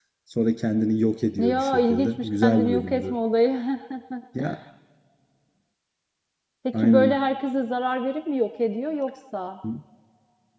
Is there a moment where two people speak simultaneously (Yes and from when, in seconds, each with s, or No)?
Yes, from 1.4 s